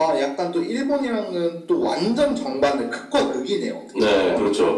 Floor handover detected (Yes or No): Yes